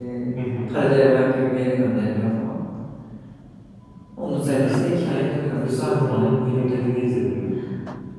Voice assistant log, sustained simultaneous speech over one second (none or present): present